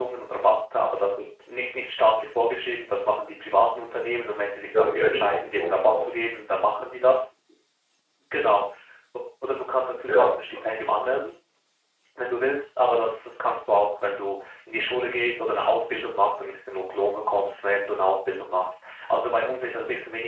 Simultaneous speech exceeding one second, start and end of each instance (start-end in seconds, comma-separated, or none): 4.7-6.2